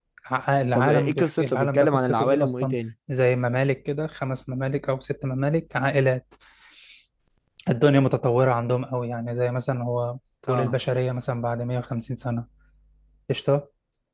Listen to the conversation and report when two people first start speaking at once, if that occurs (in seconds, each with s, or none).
0.7 s